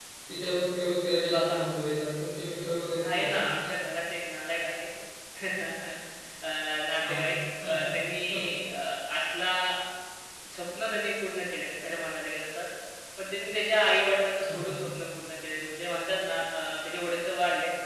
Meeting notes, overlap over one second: none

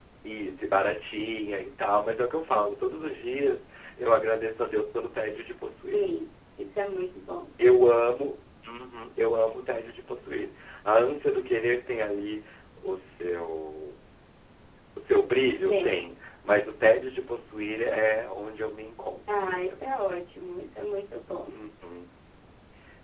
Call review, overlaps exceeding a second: none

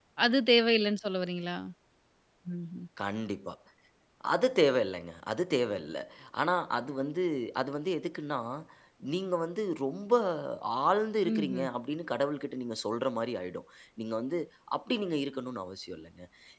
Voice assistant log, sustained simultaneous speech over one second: none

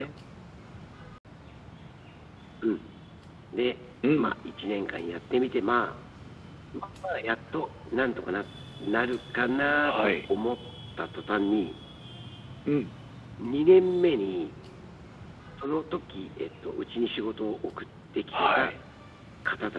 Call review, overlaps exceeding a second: none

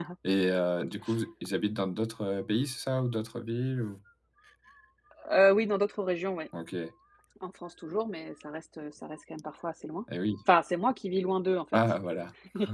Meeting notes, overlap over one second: none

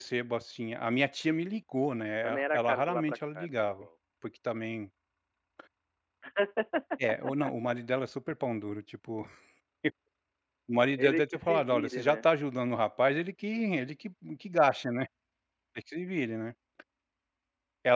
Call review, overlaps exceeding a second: present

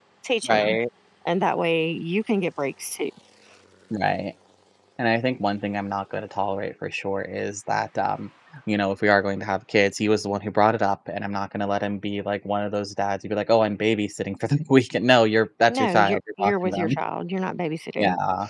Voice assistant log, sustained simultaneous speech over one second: present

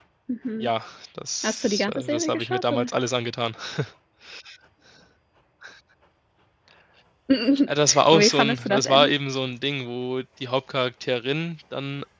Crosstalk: present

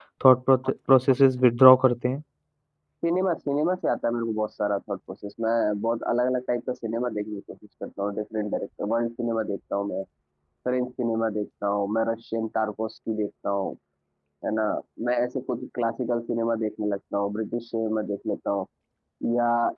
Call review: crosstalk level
none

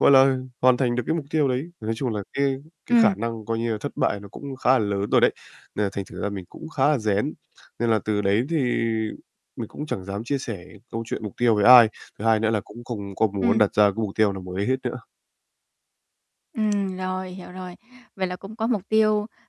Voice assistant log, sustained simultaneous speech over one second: none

